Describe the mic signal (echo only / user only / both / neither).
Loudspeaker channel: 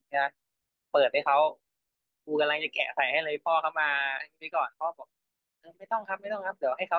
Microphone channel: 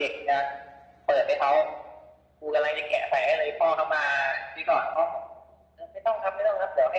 echo only